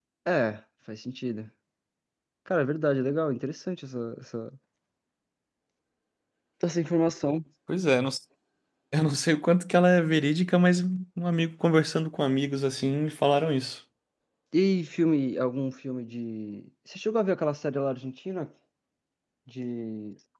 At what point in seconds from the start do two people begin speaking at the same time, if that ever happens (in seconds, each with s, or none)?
none